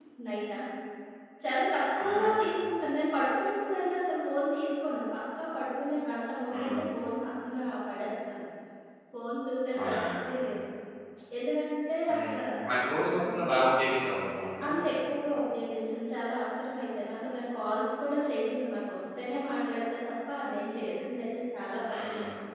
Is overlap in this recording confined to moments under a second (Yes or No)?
Yes